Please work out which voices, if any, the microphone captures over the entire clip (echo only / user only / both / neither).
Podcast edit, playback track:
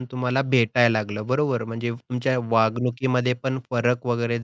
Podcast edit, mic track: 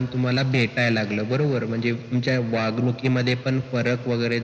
echo only